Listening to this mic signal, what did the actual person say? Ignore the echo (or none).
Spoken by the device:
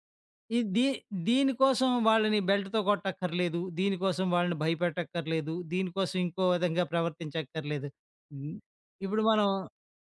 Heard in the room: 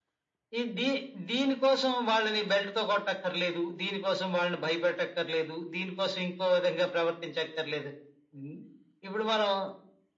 none